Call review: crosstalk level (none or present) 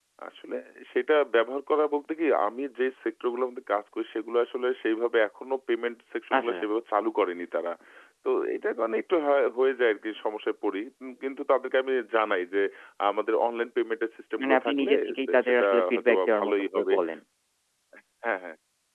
present